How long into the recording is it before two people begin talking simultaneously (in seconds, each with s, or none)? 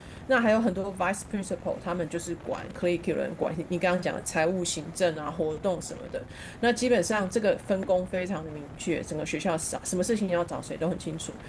none